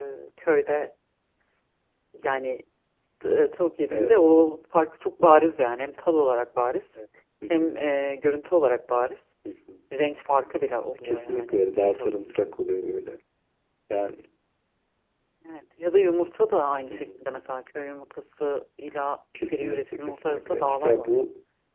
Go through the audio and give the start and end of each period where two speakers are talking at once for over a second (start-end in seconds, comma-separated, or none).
11.0-12.5, 19.5-21.2